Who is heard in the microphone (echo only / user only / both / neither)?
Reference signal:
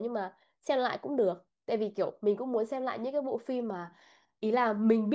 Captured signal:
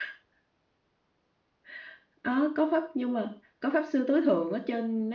user only